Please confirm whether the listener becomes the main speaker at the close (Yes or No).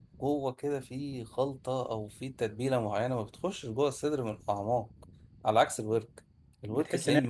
Yes